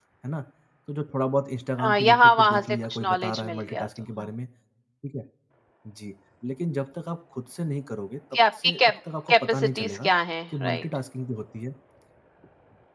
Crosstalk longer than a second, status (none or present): present